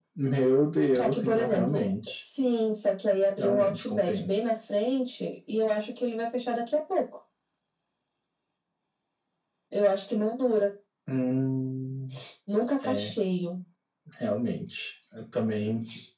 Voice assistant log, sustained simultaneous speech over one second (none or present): present